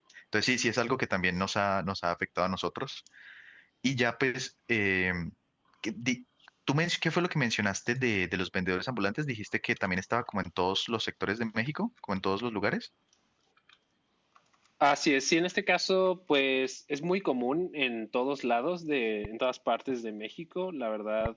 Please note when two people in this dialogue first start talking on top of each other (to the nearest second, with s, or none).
none